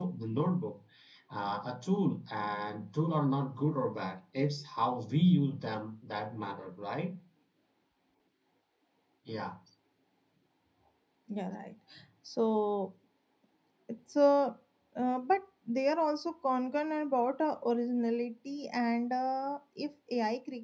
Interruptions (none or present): none